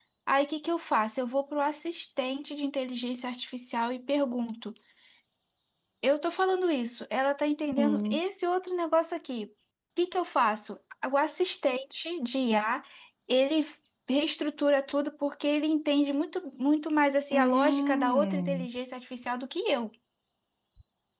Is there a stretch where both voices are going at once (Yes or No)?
Yes